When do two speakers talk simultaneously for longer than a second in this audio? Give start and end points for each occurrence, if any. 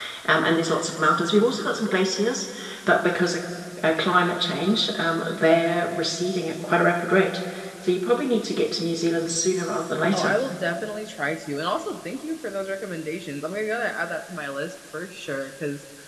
none

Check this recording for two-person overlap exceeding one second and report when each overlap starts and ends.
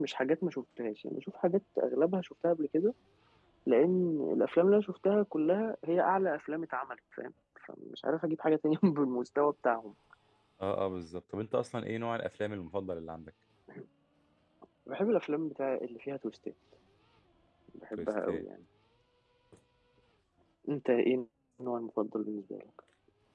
none

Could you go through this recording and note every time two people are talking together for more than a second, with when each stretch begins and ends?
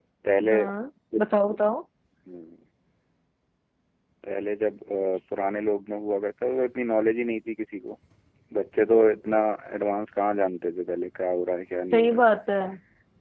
none

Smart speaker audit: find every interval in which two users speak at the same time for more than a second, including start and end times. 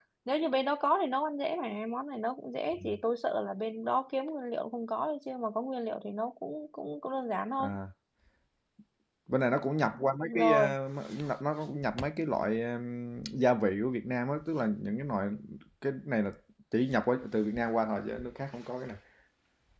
none

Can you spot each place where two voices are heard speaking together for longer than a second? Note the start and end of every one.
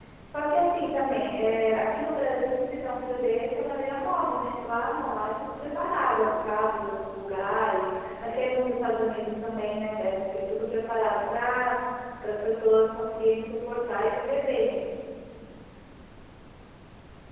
none

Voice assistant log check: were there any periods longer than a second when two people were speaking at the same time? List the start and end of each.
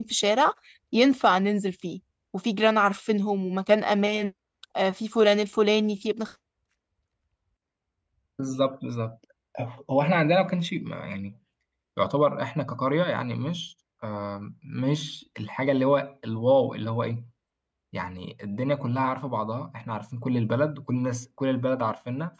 none

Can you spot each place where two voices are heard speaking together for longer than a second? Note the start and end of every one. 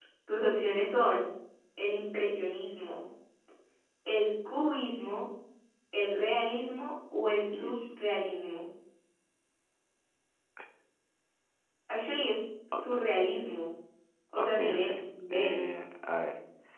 14.4-15.6

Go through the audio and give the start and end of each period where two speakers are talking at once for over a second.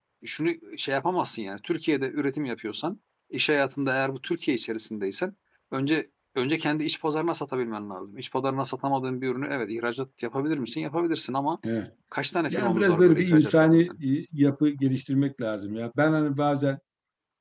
12.5-13.9

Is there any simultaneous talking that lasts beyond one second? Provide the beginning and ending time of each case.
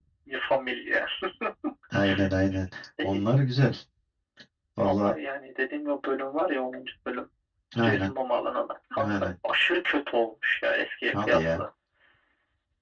none

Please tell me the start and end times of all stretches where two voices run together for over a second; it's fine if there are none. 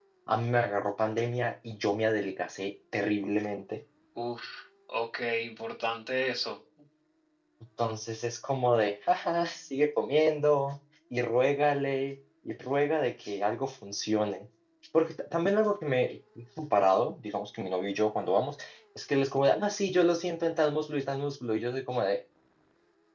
none

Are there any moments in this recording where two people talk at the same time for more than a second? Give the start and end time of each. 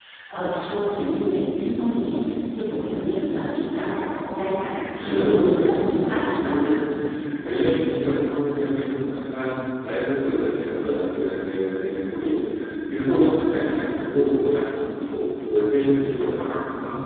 5.0-6.5

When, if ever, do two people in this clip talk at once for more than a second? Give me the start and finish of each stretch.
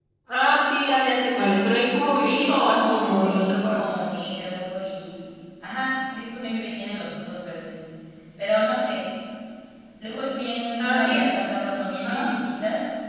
2.2-3.8

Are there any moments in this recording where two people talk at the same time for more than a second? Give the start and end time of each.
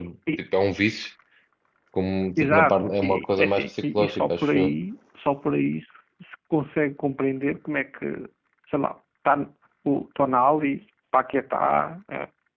2.4-4.7

